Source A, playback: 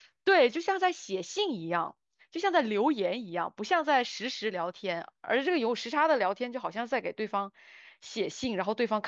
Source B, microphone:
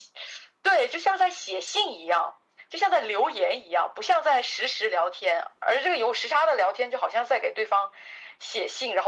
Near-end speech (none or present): none